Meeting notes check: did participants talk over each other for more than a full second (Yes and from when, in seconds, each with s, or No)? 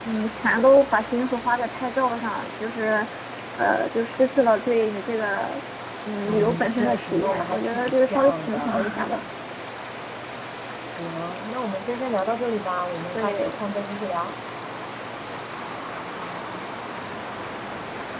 Yes, from 6.2 s